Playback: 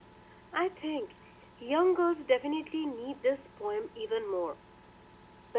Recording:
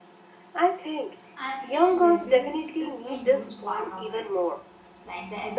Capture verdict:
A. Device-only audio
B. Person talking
B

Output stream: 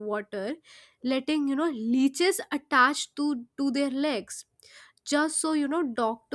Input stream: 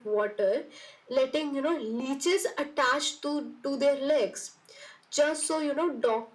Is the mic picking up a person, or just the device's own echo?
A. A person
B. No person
B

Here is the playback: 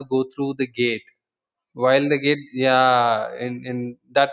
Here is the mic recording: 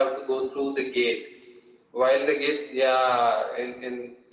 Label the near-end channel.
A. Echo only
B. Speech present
A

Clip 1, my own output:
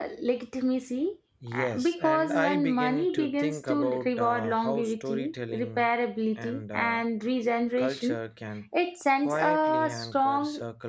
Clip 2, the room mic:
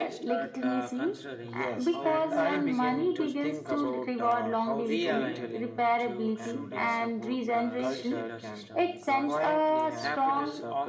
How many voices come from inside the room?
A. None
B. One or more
B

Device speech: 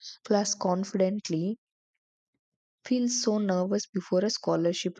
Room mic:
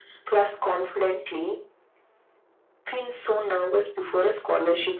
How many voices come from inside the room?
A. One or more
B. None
B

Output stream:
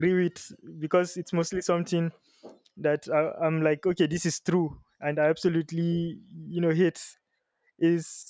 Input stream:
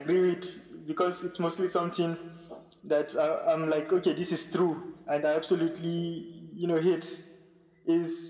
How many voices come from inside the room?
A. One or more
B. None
B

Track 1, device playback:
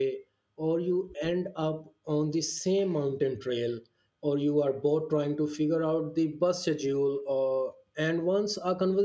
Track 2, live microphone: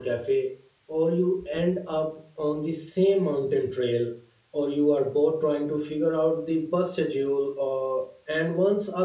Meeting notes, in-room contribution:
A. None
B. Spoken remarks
A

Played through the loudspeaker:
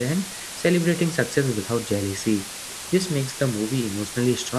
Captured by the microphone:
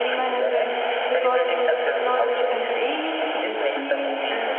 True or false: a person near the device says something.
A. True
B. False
A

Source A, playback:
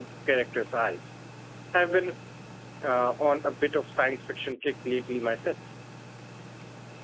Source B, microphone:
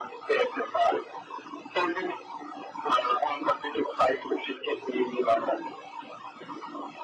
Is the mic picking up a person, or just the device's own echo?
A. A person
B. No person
B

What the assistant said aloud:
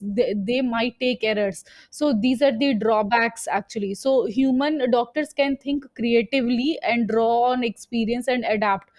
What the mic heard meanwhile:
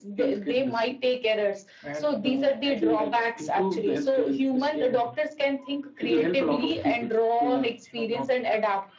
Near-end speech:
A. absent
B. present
B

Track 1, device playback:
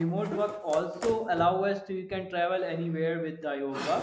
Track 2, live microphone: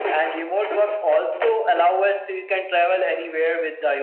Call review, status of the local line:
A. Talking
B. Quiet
B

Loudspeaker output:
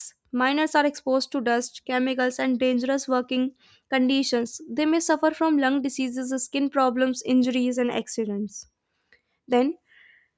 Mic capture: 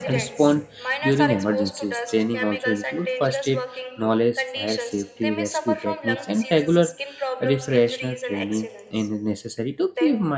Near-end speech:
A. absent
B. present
B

